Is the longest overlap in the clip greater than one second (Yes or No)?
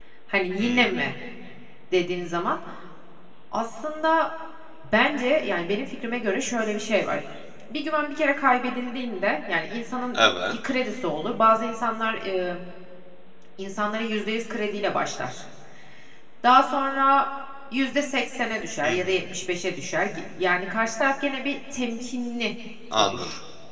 No